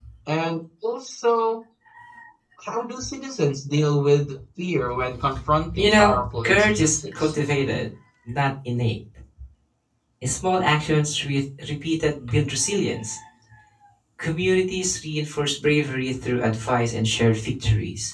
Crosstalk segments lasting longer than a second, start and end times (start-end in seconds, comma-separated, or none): 5.7-7.3